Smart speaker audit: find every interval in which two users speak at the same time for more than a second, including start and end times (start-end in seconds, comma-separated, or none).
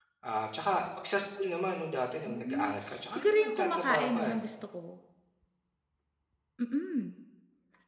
3.2-4.4